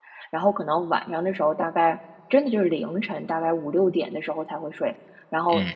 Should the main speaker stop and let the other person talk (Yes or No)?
No